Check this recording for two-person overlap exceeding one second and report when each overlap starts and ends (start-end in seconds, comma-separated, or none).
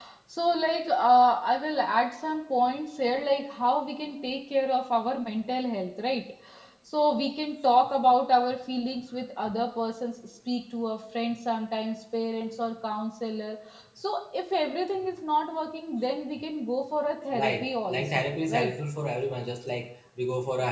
17.3-18.7